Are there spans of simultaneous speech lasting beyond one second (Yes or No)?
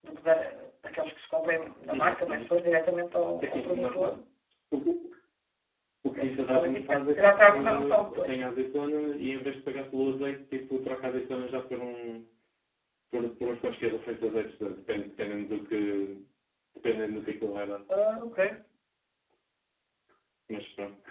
Yes